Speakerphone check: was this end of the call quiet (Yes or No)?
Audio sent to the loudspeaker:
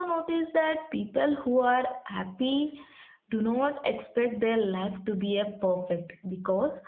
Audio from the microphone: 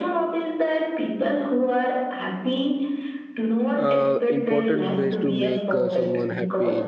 No